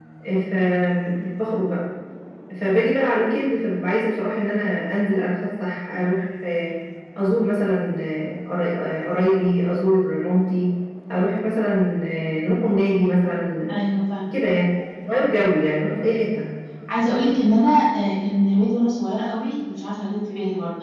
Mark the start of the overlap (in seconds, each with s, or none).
none